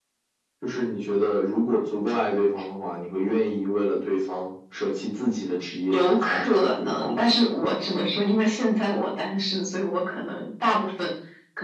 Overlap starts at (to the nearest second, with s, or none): 6 s